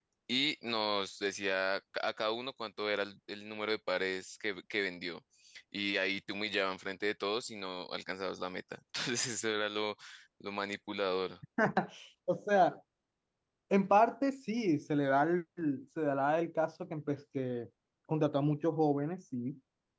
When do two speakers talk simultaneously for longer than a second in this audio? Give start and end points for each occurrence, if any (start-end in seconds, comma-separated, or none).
none